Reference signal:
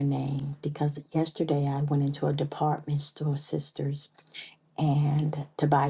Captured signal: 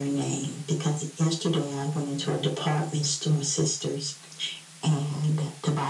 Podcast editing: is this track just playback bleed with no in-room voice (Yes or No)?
Yes